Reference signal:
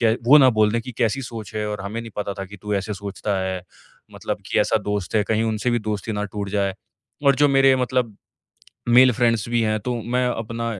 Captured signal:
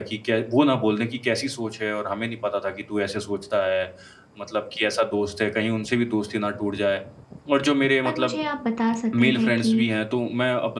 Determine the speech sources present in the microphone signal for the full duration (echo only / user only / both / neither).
both